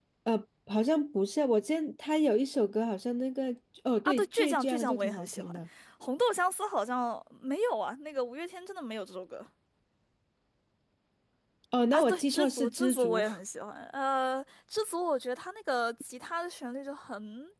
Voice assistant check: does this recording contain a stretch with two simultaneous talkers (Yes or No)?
Yes